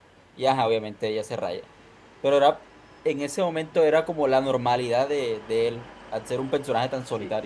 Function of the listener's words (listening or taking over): taking over